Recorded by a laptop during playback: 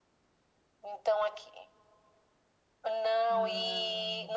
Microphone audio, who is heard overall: both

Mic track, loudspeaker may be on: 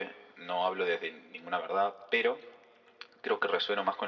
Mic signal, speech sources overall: echo only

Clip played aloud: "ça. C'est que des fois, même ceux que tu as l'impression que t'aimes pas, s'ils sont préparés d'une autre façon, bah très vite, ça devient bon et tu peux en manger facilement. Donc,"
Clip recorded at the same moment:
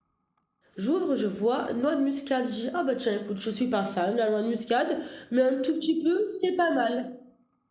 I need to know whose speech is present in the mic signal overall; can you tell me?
user only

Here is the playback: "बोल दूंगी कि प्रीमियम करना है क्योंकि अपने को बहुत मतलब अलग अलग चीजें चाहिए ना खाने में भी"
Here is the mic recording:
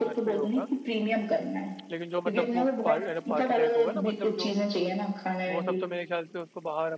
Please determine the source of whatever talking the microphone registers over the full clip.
both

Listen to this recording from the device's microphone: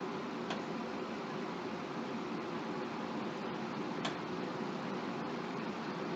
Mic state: neither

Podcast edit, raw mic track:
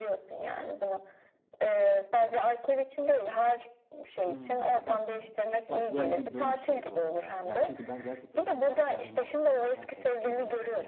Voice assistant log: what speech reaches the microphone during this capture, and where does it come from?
both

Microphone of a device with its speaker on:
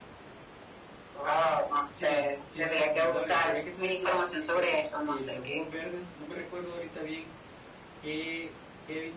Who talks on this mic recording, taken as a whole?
both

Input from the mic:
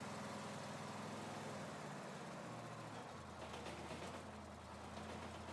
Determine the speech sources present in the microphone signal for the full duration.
neither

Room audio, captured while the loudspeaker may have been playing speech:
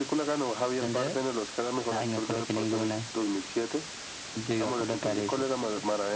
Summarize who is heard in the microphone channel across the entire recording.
echo only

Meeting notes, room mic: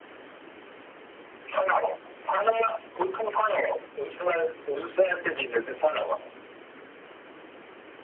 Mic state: echo only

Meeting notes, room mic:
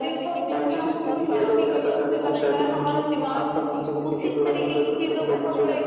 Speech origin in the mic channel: both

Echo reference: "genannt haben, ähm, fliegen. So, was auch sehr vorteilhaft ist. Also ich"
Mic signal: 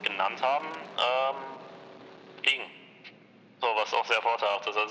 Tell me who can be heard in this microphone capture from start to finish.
echo only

